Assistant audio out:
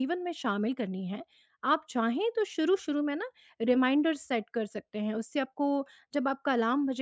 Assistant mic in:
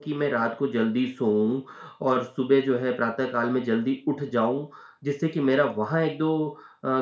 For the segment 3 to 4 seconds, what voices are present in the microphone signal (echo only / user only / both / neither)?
user only